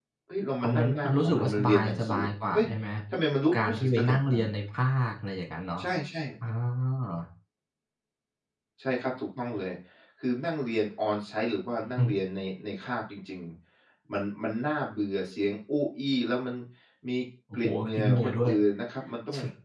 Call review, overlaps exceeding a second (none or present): present